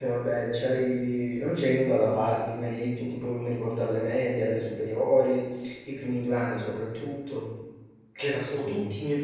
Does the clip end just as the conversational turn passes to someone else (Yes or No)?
No